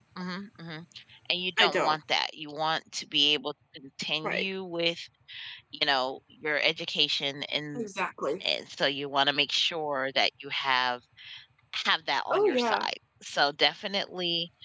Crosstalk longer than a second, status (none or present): none